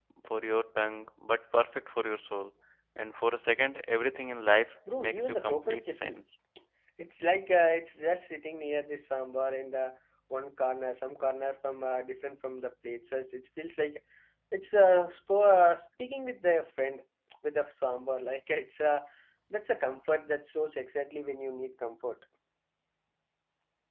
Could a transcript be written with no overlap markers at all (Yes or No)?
No